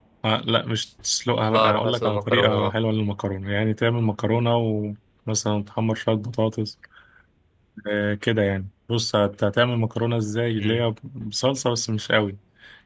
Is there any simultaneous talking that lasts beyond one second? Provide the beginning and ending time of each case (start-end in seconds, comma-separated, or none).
1.5-2.8